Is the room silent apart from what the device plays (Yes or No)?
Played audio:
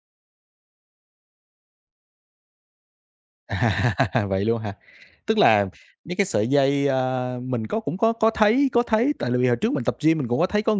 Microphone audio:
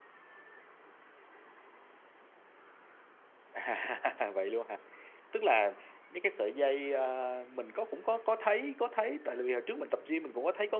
Yes